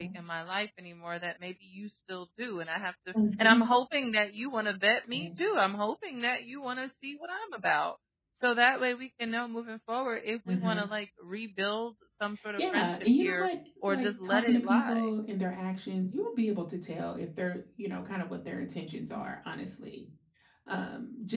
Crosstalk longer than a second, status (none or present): present